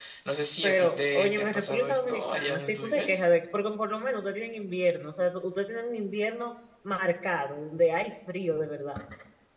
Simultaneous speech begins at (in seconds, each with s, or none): 0.6 s